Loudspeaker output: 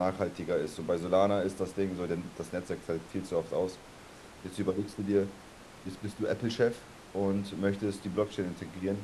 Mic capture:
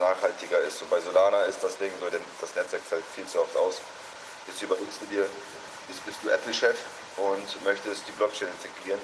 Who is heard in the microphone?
echo only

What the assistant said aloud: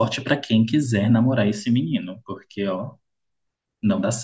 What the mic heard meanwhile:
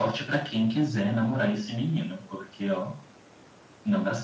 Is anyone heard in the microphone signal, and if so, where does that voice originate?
echo only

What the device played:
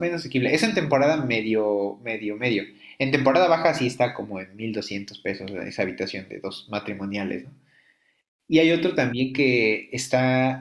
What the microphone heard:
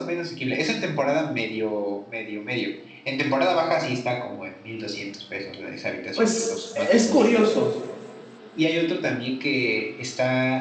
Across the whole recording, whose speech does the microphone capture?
both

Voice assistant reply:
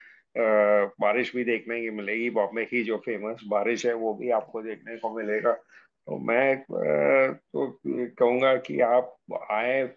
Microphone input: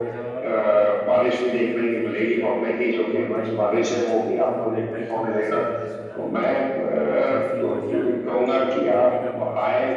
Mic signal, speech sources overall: both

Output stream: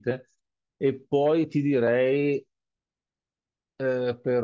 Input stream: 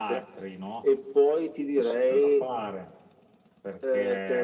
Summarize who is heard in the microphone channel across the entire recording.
both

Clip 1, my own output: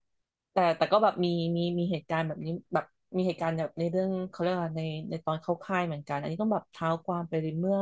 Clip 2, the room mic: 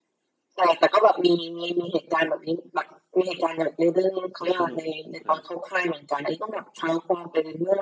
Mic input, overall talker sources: both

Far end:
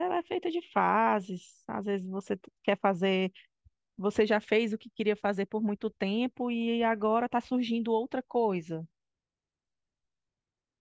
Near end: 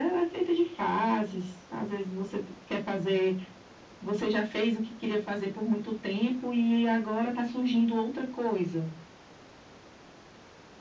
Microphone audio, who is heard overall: echo only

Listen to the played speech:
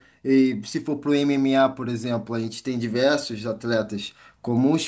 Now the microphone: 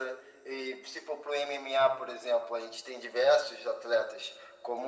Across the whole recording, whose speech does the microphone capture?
echo only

